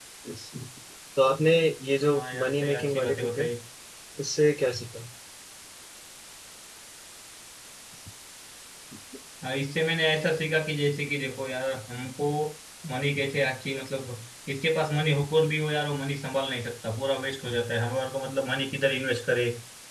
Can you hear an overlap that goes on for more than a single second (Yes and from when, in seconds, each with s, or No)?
Yes, from 2.1 s